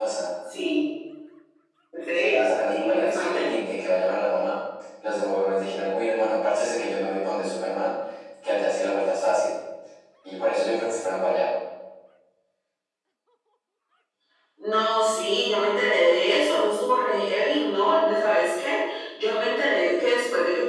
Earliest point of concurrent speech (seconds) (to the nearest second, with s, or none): 2 s